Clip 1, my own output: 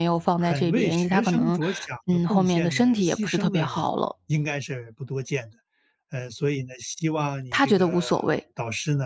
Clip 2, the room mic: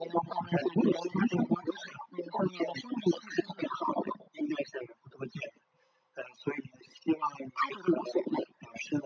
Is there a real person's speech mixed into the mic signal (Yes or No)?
No